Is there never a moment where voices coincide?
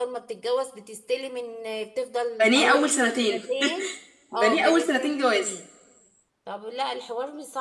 No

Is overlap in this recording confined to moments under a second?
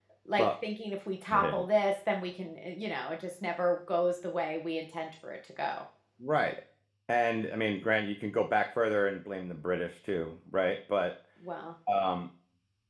Yes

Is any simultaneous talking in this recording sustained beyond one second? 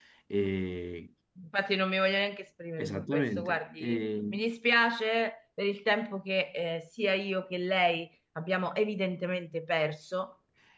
Yes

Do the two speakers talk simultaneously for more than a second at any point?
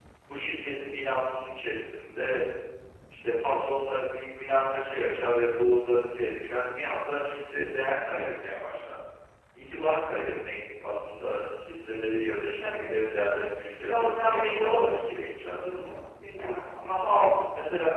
Yes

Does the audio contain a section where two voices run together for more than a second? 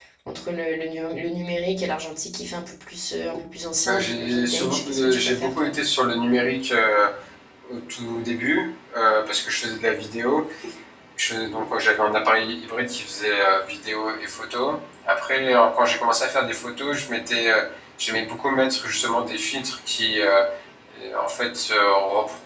Yes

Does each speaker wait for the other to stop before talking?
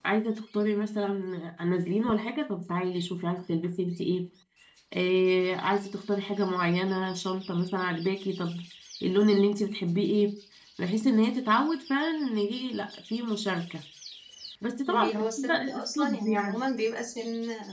No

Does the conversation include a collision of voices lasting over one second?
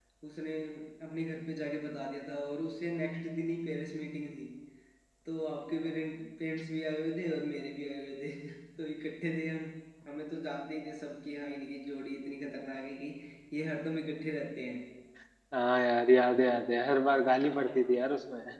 No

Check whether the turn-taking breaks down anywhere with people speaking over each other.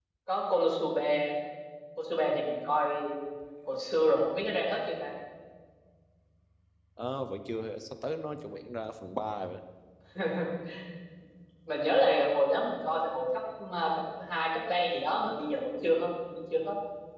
No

